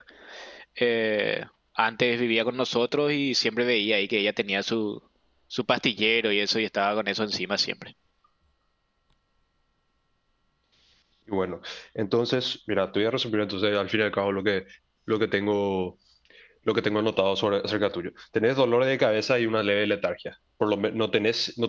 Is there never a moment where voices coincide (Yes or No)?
Yes